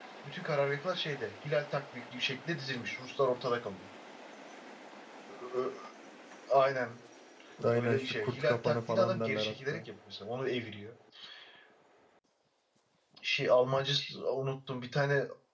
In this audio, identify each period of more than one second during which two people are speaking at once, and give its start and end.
7.7-9.8

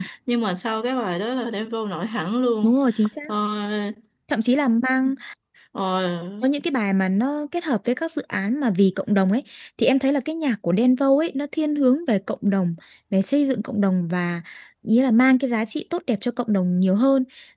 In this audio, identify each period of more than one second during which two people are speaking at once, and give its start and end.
none

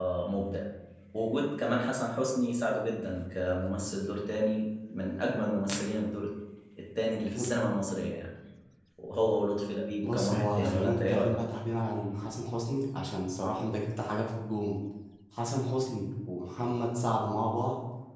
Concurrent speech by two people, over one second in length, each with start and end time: 10.0-11.3

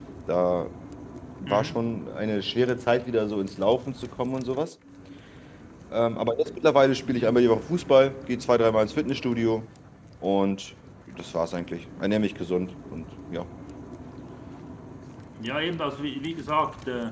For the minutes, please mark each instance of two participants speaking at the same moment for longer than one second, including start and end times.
none

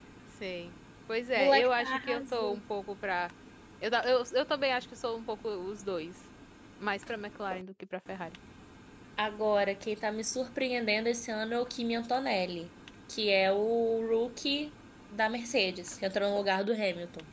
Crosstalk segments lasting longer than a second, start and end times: 1.4-2.6

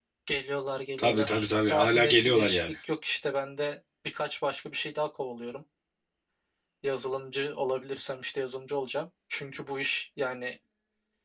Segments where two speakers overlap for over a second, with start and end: 1.0-2.6

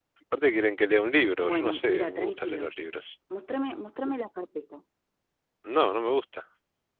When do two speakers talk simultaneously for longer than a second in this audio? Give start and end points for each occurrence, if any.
1.4-2.7

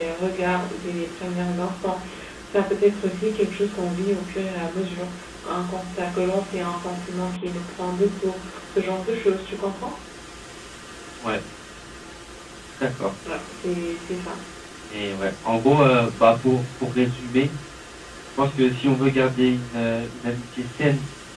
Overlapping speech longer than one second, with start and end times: none

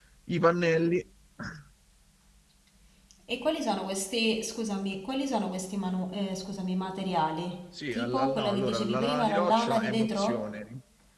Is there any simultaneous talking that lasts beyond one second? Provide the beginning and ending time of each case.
7.9-10.4

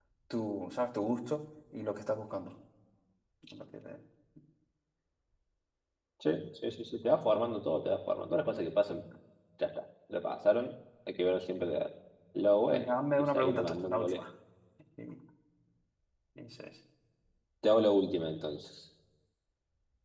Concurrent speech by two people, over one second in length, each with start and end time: 12.7-14.2

